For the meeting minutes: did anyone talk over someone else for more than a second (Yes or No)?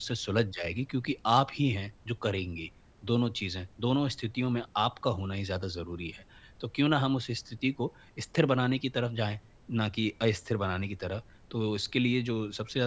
No